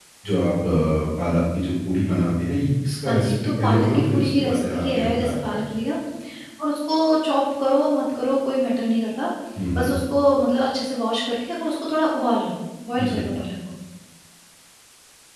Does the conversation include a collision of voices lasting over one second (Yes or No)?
Yes